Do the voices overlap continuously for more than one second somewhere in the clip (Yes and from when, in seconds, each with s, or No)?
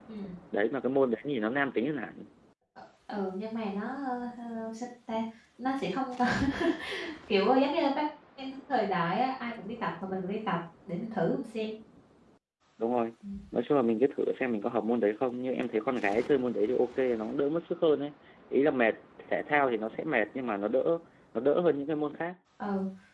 No